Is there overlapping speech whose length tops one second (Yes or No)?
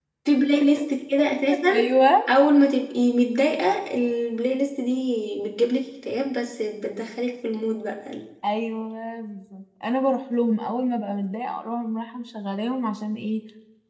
No